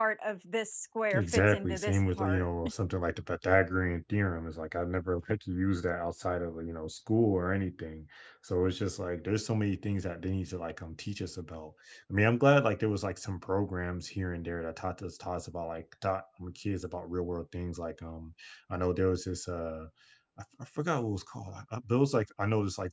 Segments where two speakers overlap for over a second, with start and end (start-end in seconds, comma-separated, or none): 1.1-2.5